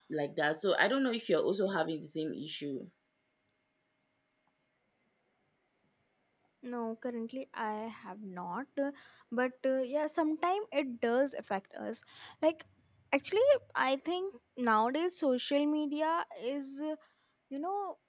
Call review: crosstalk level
none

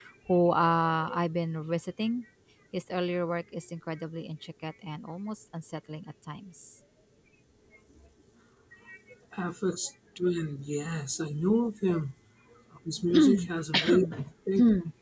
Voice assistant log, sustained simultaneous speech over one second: none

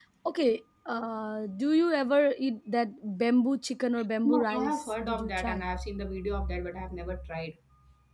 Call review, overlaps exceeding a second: present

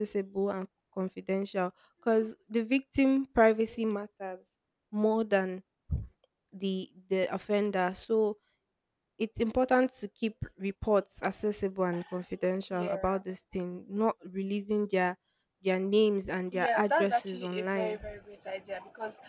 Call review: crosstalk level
present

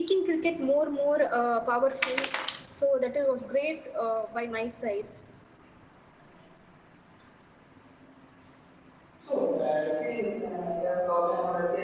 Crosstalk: none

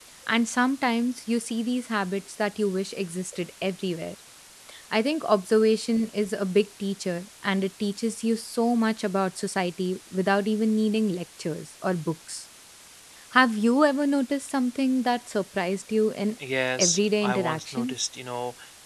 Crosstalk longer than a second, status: present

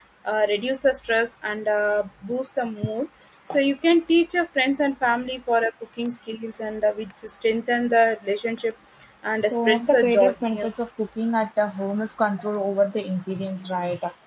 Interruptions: present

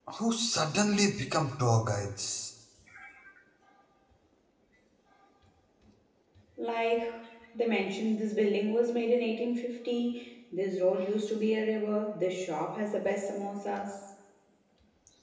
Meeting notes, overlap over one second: none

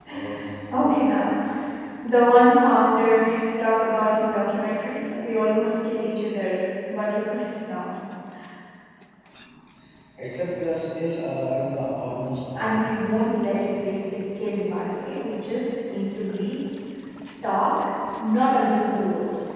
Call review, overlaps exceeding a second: none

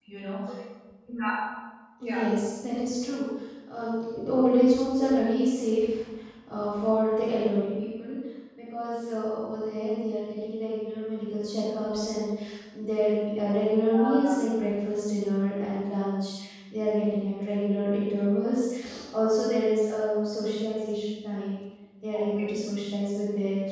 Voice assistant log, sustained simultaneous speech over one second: none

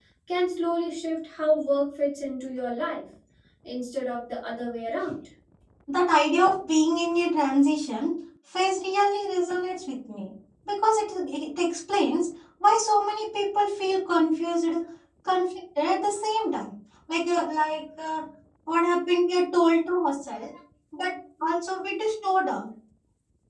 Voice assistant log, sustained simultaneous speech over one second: none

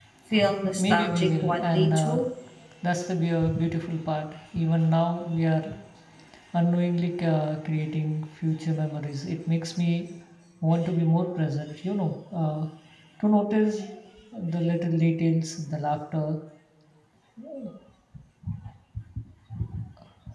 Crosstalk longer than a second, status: present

